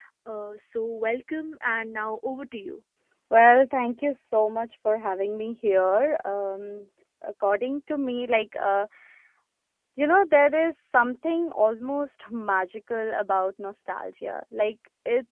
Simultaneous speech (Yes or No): No